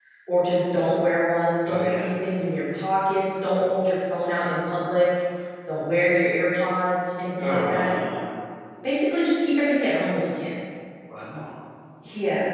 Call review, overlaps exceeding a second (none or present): none